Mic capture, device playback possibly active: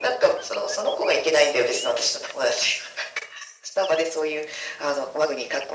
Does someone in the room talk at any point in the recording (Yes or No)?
No